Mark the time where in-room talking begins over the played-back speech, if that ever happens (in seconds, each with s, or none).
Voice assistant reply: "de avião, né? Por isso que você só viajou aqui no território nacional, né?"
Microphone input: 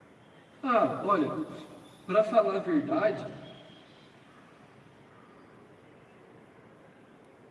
0.6 s